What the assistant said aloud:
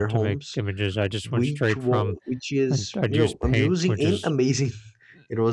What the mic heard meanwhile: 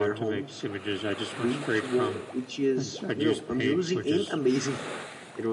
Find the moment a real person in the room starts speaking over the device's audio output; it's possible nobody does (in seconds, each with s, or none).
none